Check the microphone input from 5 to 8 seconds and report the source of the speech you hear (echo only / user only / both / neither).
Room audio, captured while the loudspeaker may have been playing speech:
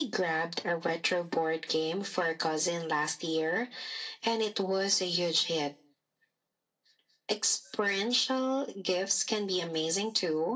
echo only